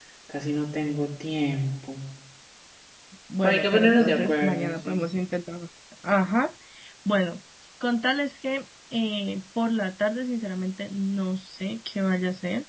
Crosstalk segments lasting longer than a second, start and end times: 3.4-5.0

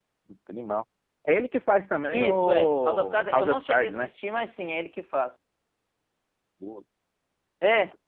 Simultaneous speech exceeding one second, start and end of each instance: 2.1-4.1

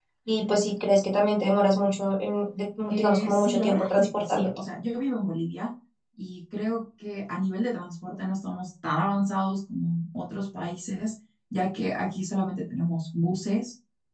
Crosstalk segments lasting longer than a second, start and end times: 2.9-4.5

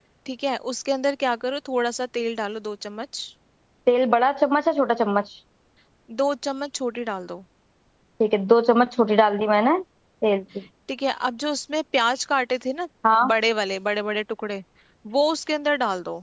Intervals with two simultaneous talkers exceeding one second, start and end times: none

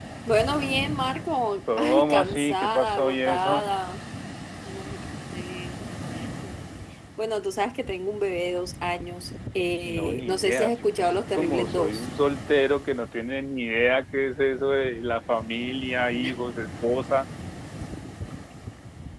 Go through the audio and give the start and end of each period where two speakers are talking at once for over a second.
1.8-3.6, 9.8-12.1

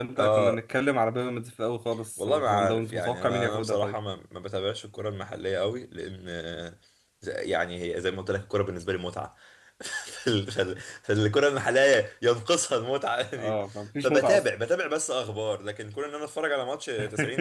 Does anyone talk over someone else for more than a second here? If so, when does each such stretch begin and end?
2.2-4.0

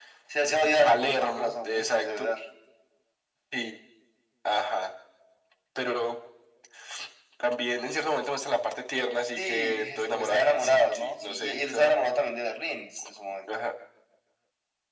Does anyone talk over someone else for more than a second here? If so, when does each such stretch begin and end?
0.8-2.3, 9.4-11.9

